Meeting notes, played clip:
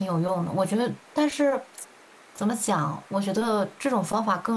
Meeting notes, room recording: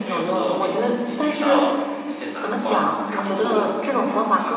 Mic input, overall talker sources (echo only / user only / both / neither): both